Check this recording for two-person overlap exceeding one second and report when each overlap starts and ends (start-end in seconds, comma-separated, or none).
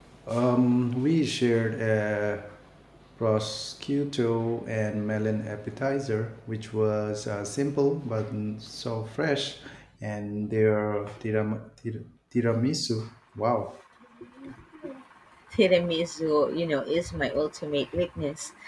none